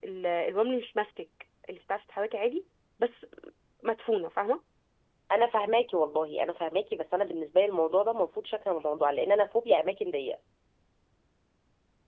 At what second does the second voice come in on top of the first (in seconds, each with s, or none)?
none